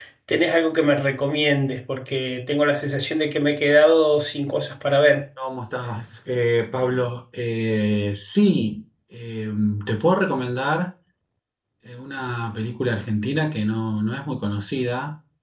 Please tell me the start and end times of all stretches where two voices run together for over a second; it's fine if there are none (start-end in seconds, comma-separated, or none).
none